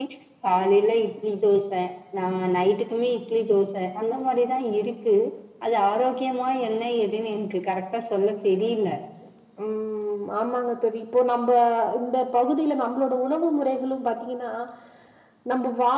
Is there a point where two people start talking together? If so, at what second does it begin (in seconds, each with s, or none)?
none